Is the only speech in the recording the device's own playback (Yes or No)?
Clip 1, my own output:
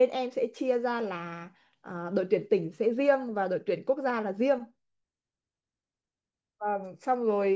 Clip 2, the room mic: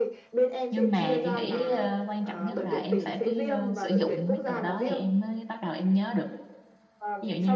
No